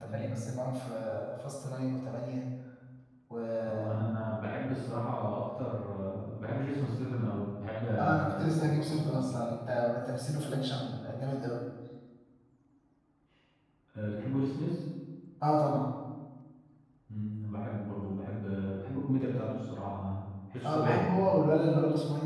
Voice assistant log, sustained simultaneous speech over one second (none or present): present